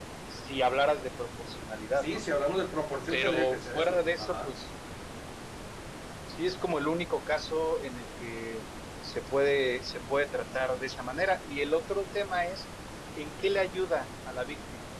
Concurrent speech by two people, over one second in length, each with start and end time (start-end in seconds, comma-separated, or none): 3.1-4.5